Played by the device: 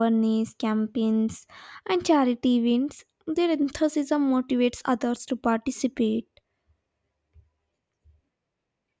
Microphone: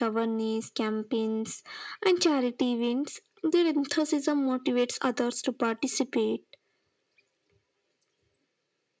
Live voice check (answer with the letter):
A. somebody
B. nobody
B